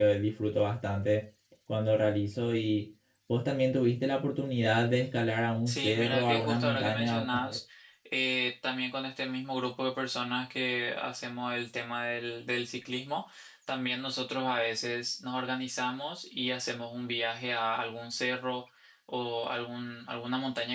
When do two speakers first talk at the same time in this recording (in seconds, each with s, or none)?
5.7 s